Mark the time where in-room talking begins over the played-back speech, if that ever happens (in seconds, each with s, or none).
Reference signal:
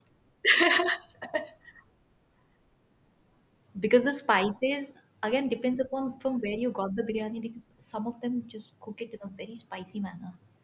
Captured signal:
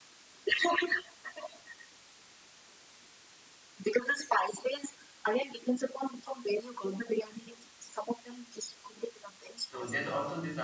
9.6 s